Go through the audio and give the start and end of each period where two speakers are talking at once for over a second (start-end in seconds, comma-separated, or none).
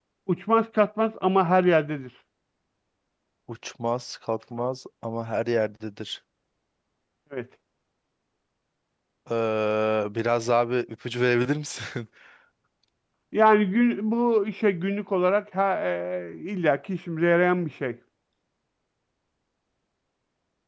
none